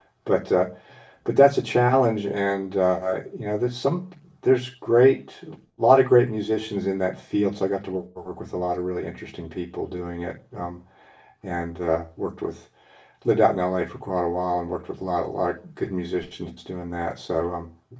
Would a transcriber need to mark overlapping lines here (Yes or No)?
No